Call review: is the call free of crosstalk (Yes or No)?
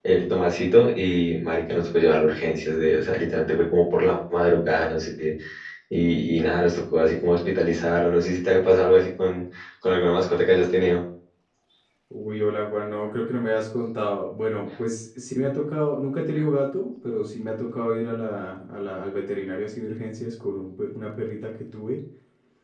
Yes